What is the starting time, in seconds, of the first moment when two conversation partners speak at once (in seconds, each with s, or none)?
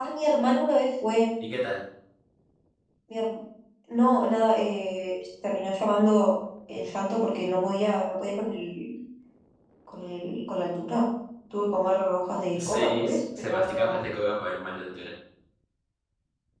12.6 s